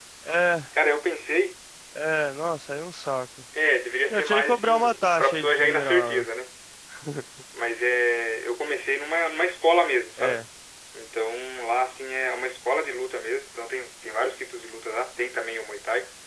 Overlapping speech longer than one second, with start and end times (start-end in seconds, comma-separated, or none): 4.1-6.2